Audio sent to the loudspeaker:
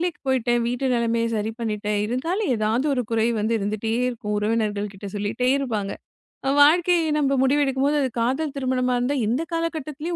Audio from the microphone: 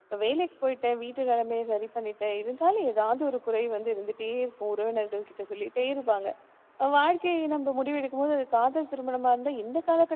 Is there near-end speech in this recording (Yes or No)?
No